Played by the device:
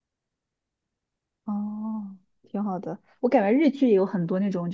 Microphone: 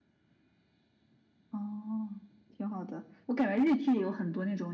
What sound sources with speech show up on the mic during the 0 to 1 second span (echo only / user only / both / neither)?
neither